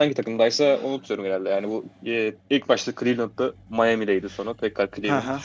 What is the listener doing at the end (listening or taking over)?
taking over